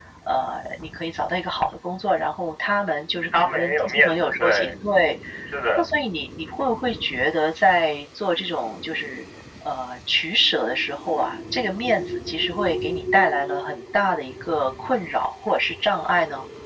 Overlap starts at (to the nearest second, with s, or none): 3 s